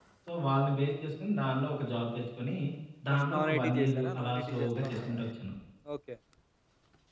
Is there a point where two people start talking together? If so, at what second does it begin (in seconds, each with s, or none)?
3.1 s